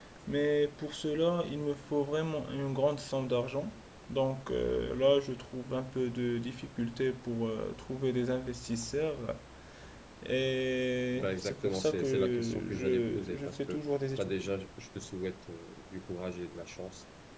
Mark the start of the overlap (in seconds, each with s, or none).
11.2 s